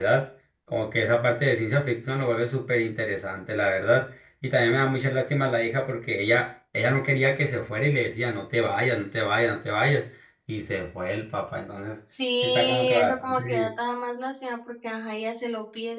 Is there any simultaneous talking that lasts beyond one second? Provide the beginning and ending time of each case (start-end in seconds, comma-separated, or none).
12.4-13.7